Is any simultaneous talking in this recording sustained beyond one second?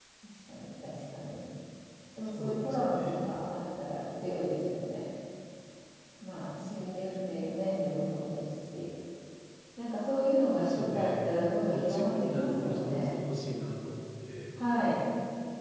Yes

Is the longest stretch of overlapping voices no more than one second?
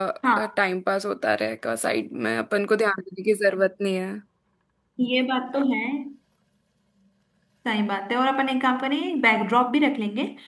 Yes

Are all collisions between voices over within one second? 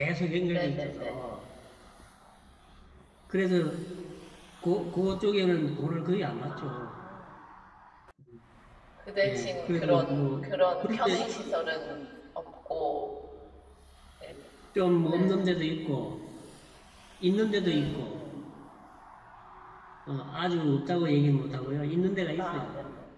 No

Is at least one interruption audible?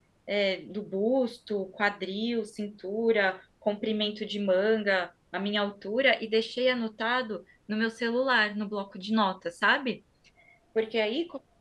No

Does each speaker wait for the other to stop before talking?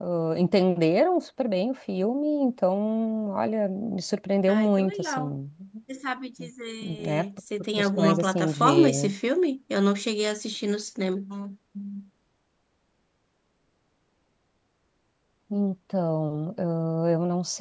No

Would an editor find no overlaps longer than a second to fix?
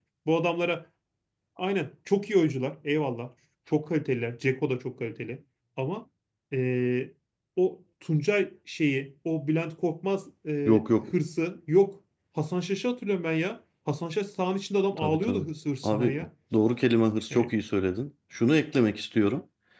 Yes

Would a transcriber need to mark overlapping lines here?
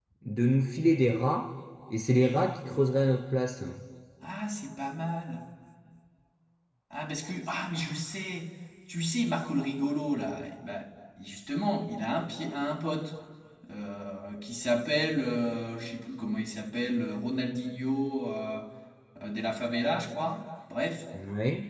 No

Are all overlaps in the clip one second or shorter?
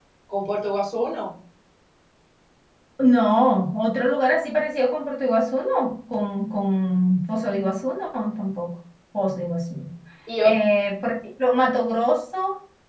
Yes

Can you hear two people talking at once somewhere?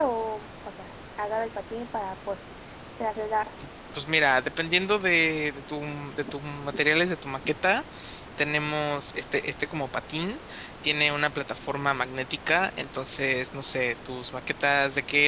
No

